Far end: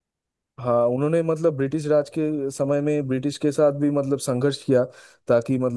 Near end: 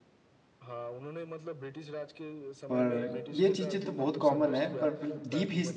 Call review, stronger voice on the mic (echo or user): user